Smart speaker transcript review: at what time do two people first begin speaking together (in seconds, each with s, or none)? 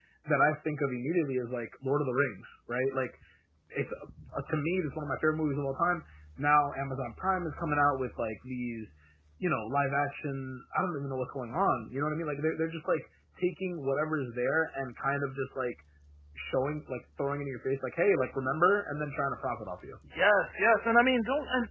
none